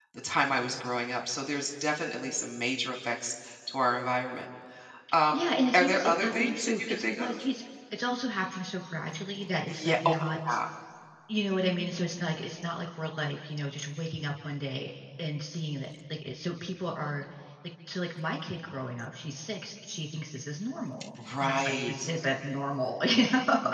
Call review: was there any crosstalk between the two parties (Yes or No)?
Yes